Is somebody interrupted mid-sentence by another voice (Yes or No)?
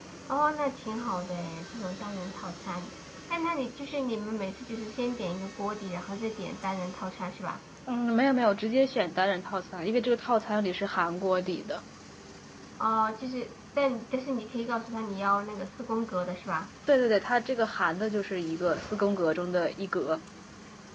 No